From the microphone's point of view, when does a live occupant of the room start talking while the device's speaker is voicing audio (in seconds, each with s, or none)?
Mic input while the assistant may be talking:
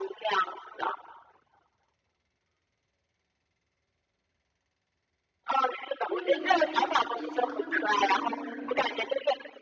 6.0 s